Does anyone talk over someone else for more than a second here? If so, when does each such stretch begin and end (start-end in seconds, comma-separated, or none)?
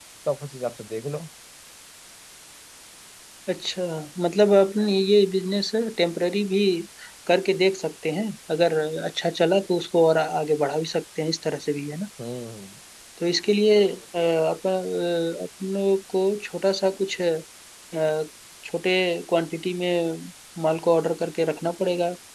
none